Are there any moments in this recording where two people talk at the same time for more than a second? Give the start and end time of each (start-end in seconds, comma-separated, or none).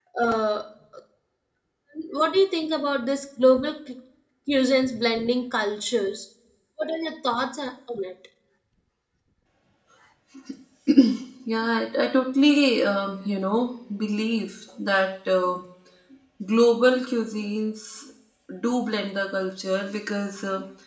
none